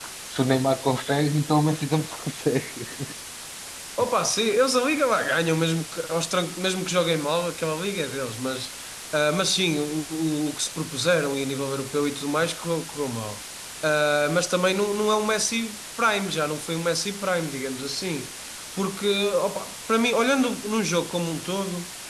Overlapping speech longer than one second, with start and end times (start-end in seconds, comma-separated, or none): none